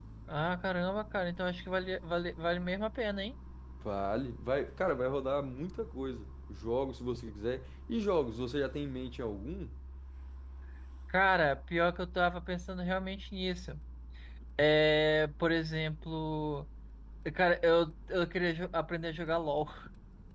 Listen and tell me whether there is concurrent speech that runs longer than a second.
No

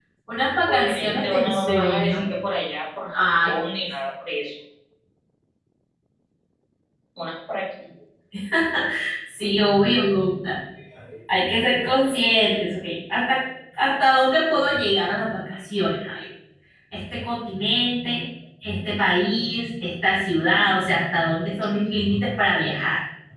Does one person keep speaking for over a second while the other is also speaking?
Yes, from 0.7 s

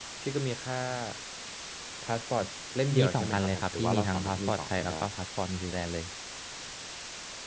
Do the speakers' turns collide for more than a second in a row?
Yes, from 2.9 s

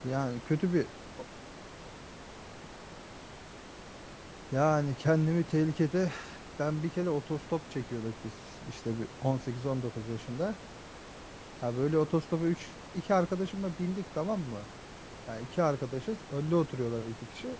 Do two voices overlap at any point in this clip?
No

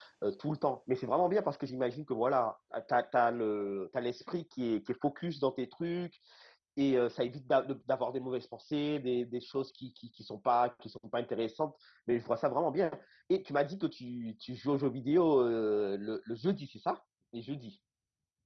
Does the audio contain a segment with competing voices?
No

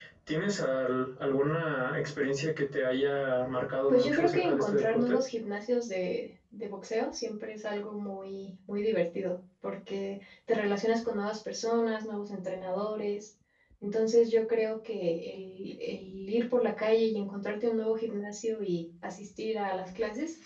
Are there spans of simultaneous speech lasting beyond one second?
Yes, from 3.9 s

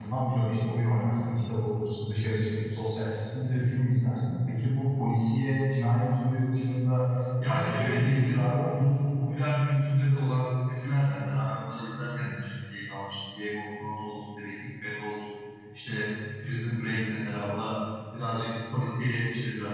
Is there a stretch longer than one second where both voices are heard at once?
Yes, from 7.5 s

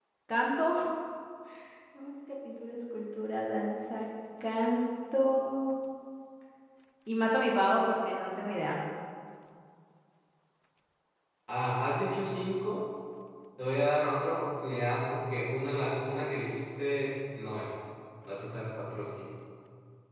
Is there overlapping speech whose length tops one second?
No

